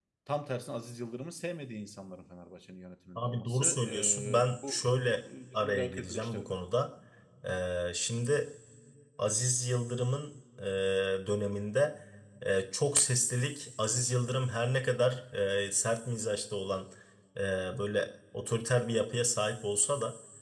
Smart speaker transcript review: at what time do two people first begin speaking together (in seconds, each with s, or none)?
3.2 s